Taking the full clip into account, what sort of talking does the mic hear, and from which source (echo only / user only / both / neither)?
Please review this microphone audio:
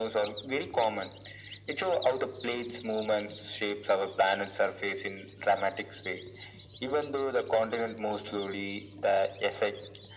echo only